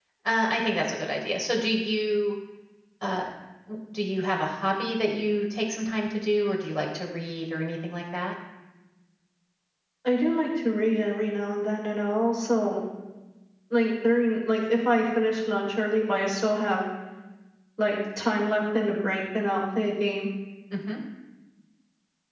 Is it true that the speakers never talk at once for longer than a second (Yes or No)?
Yes